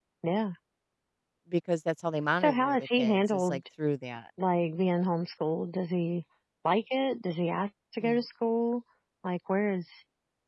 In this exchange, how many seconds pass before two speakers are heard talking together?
2.4 s

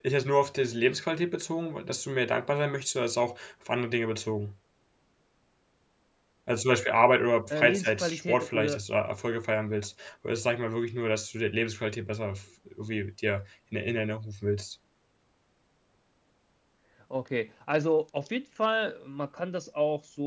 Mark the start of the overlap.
7.5 s

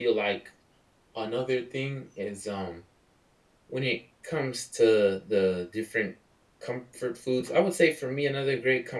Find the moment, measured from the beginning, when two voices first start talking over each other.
none

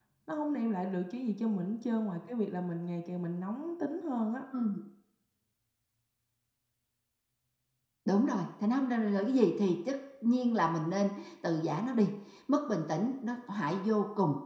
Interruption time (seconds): none

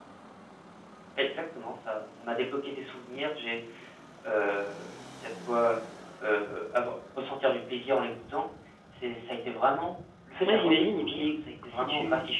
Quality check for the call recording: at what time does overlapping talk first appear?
10.5 s

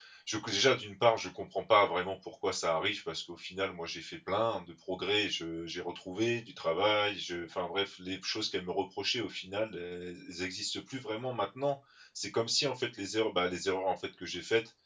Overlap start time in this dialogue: none

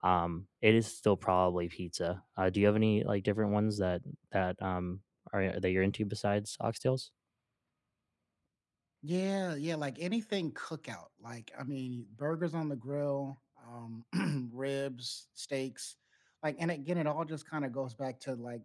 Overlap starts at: none

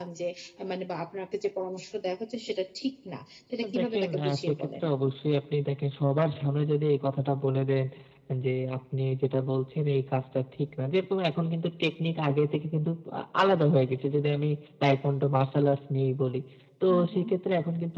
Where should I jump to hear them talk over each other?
3.6 s

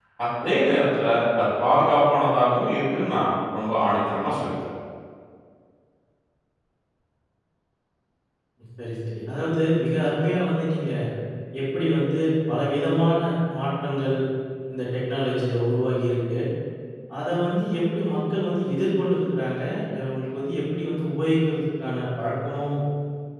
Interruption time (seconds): none

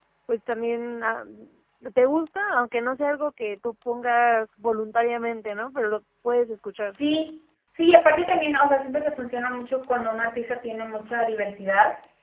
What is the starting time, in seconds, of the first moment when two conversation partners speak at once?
none

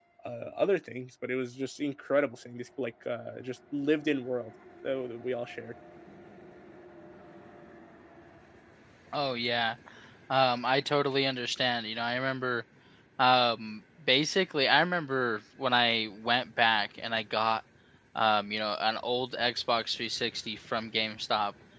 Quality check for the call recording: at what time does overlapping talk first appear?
none

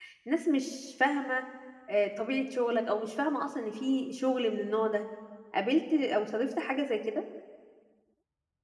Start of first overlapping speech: none

